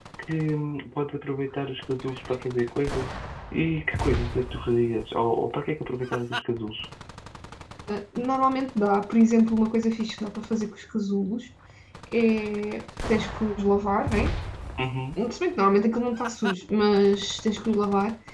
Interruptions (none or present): none